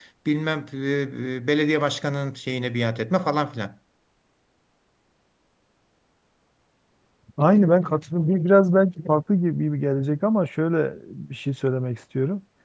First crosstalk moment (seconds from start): none

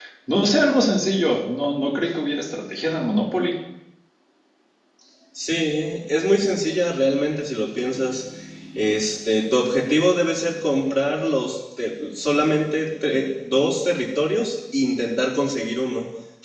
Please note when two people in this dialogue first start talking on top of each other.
none

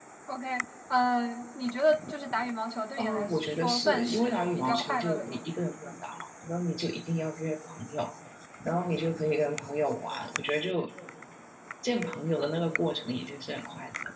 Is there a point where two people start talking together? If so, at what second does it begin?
3.0 s

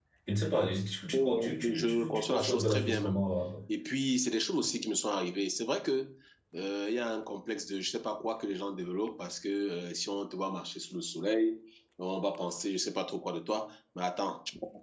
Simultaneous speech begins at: 1.1 s

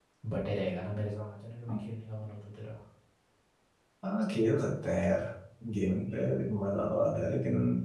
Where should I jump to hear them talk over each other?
none

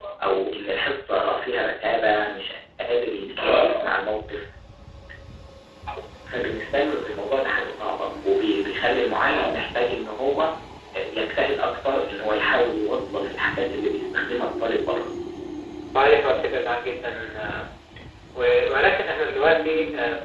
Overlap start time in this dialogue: none

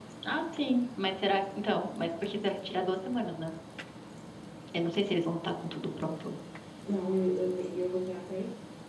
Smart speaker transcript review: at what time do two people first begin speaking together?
none

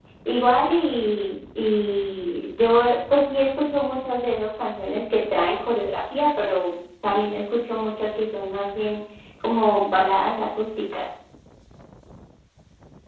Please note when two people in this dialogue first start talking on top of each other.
none

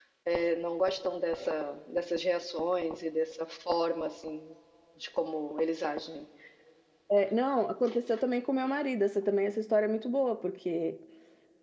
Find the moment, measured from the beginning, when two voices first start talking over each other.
none

